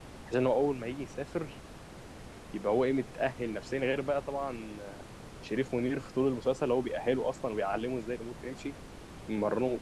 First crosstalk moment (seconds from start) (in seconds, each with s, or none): none